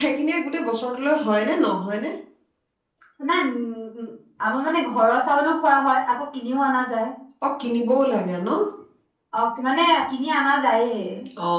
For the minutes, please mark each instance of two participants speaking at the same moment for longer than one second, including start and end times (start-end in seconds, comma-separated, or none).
none